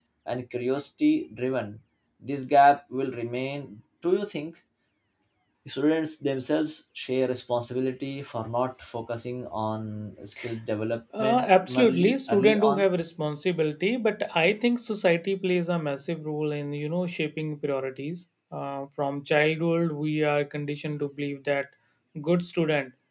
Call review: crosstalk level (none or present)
present